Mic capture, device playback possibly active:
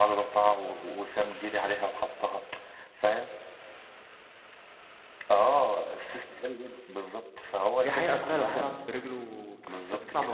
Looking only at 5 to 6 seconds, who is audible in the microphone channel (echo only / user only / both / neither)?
echo only